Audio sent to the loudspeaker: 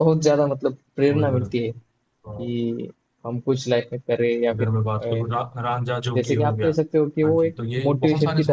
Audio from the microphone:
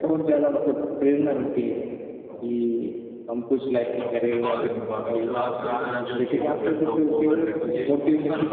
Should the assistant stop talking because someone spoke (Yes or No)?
Yes